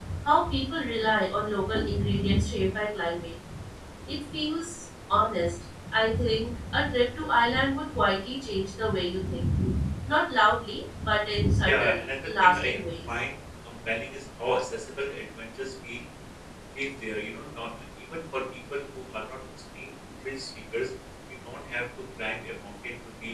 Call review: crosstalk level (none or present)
present